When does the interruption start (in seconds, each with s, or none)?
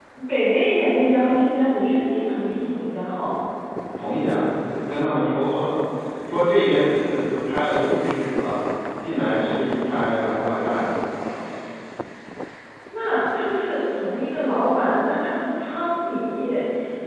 none